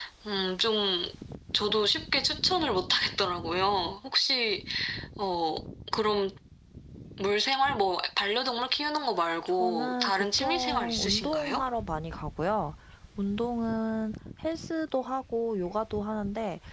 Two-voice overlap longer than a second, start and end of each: 9.4-11.6

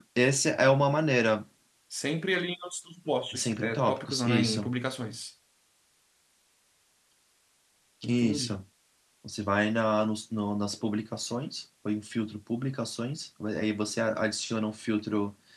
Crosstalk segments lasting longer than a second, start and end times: 3.4-4.7

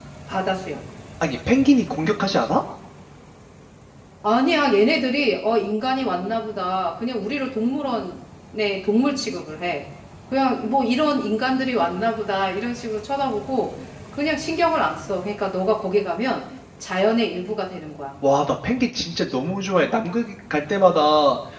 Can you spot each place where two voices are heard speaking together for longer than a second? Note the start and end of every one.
none

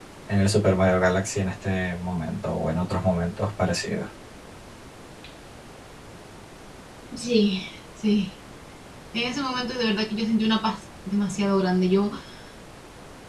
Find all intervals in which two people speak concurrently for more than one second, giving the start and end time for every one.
none

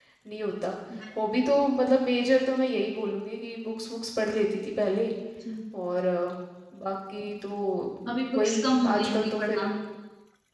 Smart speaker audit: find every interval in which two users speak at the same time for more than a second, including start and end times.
8.4-9.7

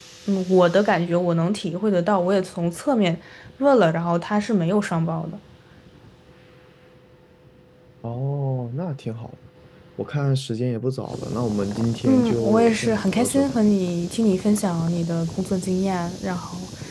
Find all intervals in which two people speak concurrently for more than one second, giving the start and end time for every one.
12.1-13.6

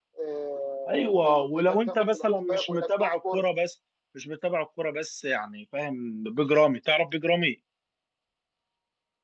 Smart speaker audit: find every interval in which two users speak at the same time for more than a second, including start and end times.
0.9-3.4

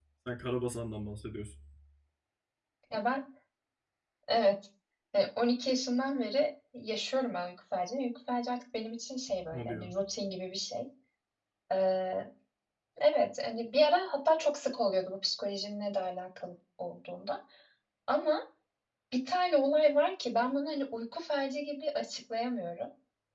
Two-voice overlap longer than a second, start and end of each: none

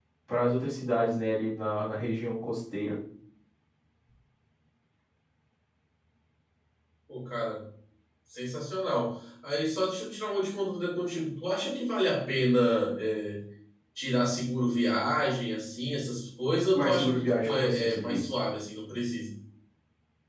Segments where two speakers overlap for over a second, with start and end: 16.8-18.3

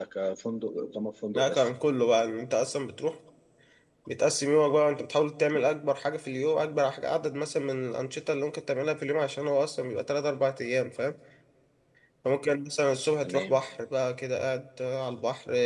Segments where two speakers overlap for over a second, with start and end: none

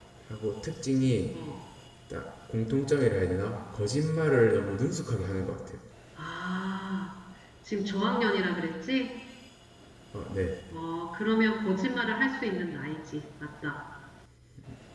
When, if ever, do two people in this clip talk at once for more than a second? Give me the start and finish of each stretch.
none

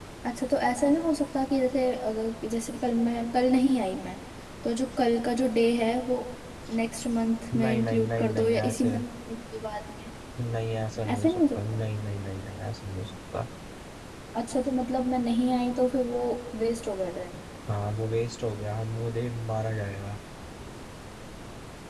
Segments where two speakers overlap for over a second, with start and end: 7.5-9.0

